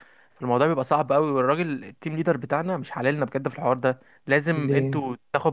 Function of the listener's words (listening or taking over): listening